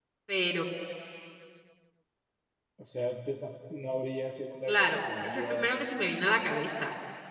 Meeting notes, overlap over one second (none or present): present